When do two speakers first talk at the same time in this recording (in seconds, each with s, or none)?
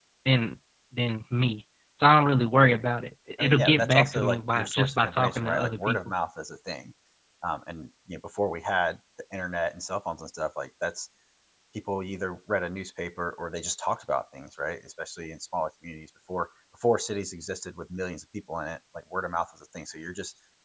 3.4 s